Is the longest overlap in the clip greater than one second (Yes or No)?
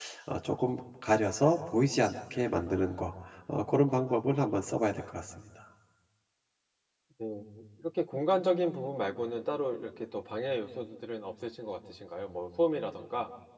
No